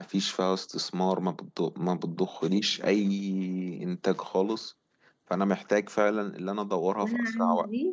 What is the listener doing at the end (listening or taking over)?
taking over